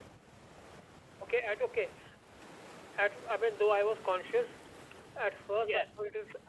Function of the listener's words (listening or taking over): listening